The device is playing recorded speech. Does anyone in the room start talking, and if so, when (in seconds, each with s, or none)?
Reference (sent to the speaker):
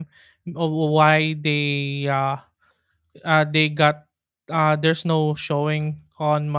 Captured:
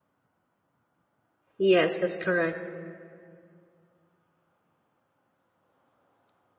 1.6 s